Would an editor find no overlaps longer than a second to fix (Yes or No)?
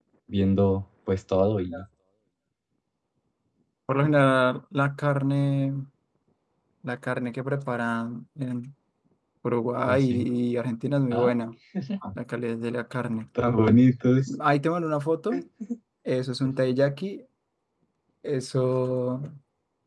Yes